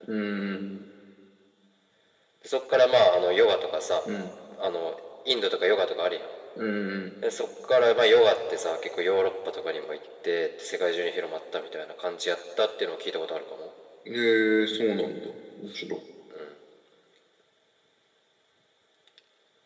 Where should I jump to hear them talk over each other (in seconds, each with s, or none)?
none